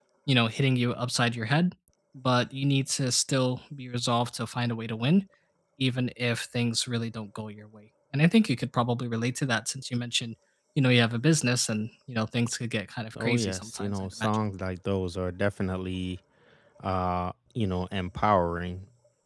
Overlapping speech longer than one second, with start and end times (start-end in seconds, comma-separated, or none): 13.2-14.4